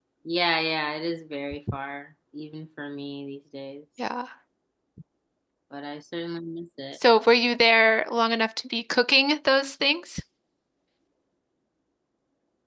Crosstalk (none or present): none